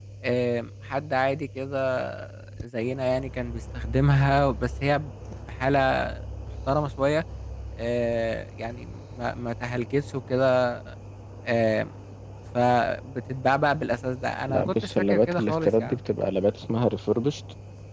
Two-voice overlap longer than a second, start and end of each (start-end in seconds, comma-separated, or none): 14.5-16.0